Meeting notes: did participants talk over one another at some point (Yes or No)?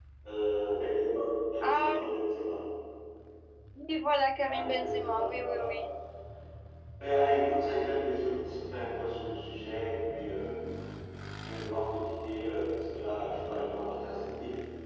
Yes